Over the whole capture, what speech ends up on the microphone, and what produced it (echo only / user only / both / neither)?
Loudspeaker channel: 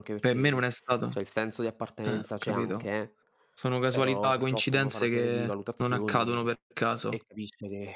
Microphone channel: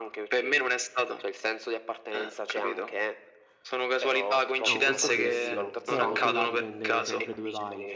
both